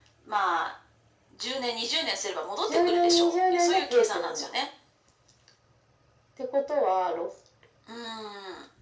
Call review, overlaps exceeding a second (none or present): present